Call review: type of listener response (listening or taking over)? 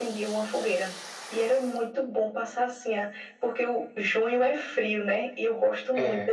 listening